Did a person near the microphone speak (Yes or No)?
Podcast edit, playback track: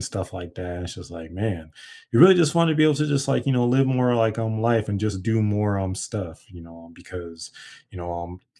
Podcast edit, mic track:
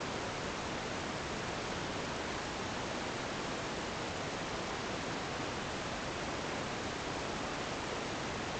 No